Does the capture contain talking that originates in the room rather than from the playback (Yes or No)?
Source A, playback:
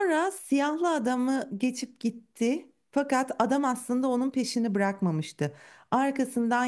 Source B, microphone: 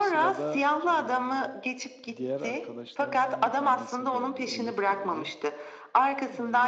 Yes